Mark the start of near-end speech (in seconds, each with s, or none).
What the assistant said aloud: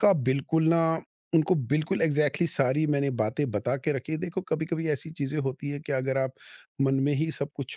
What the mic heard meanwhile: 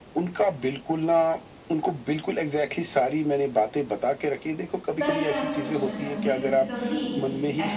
5.0 s